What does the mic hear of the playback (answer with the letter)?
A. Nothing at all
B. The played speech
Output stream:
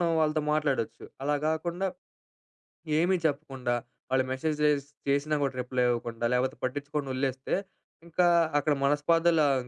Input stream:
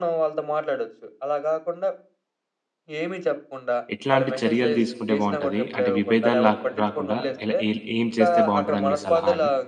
B